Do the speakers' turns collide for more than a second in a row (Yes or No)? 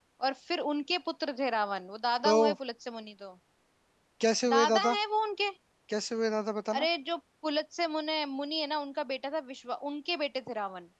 No